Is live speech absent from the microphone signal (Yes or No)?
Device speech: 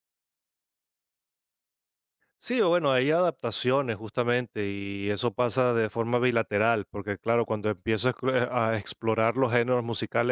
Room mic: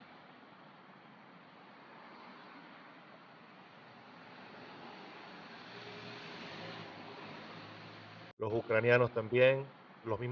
No